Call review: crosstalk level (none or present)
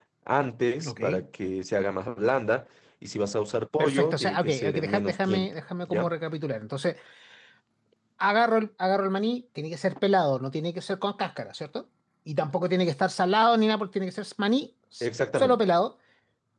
present